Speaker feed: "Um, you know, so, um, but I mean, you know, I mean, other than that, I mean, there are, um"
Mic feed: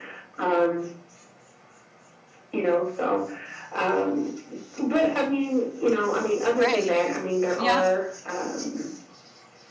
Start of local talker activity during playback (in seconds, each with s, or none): 6.5 s